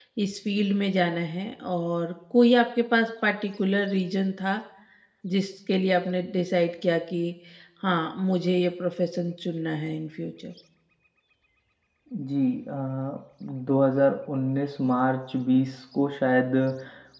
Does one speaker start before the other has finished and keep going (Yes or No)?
No